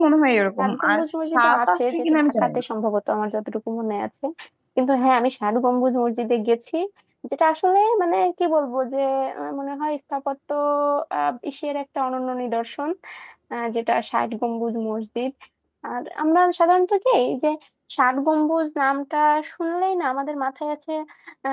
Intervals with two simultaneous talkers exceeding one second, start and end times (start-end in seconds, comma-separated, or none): 0.6-2.6